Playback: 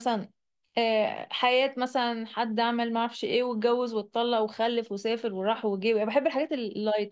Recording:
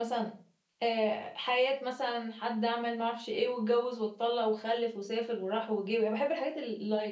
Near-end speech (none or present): none